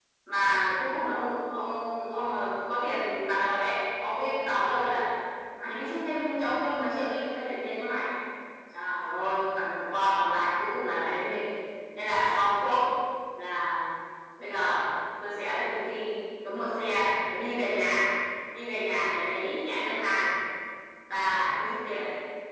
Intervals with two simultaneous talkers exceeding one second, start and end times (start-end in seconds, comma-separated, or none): none